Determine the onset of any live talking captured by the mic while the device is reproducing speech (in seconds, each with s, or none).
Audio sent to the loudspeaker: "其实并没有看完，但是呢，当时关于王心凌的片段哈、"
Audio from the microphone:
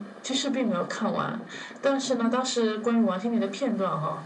2.2 s